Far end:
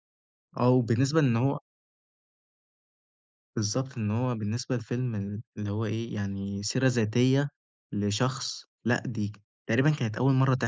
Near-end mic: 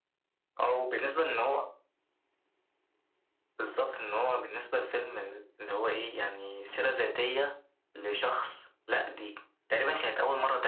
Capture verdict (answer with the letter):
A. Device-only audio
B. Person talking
A